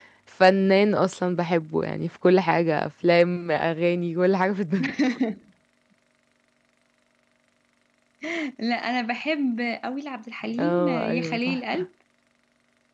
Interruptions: present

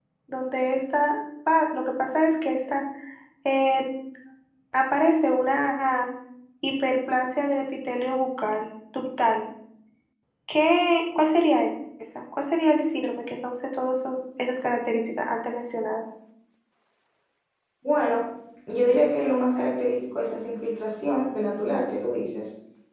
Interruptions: none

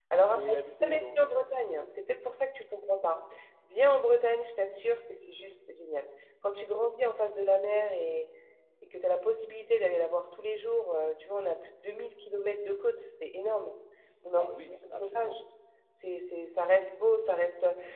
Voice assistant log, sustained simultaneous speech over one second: present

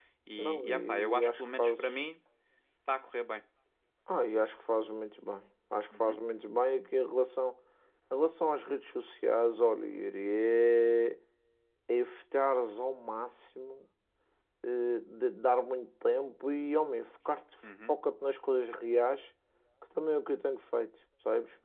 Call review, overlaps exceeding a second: present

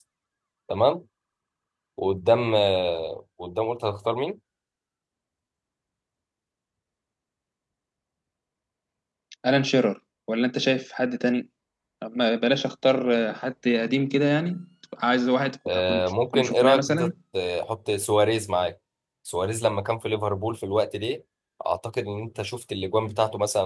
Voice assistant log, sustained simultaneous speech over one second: present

